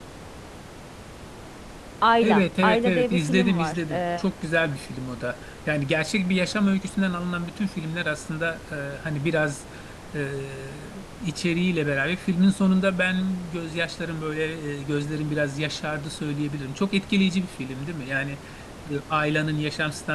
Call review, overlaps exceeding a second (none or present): present